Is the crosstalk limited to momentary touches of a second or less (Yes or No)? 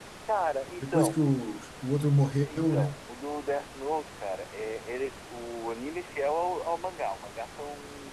Yes